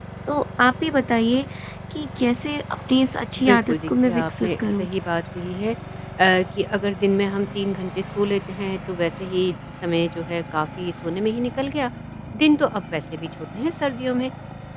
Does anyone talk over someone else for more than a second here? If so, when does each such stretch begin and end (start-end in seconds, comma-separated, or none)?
3.4-4.9